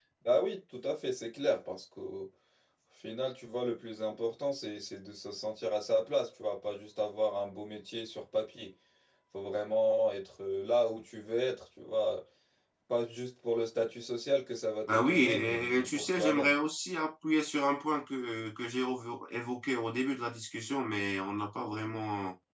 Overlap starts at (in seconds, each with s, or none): 14.9 s